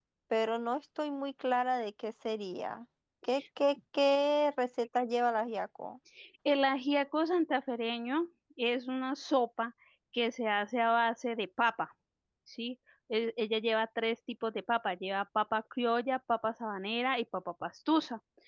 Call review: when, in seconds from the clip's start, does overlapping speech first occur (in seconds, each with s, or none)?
none